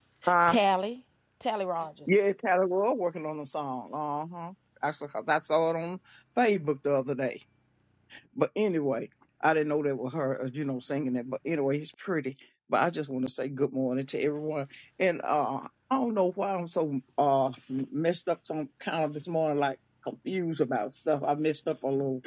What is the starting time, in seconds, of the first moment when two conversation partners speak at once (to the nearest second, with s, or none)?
none